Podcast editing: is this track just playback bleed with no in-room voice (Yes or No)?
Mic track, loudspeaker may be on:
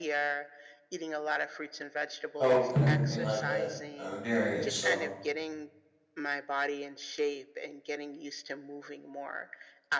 No